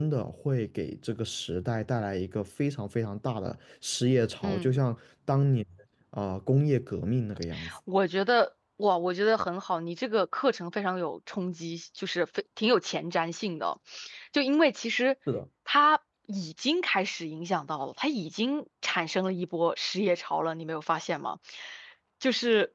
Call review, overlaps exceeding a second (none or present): none